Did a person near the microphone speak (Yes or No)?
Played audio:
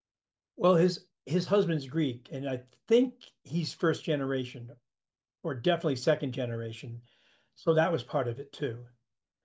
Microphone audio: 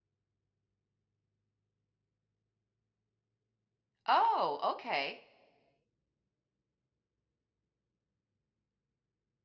Yes